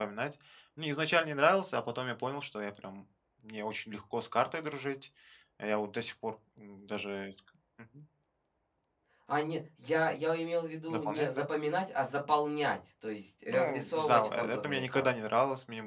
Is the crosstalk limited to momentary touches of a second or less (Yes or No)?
No